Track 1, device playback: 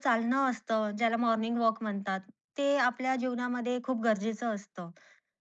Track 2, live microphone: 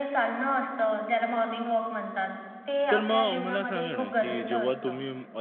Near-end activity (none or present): present